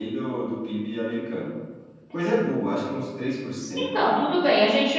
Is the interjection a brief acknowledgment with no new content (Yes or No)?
No